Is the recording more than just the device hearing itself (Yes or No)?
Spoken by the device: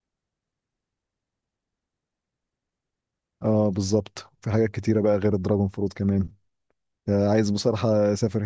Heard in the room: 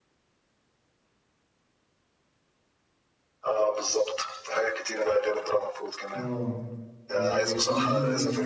Yes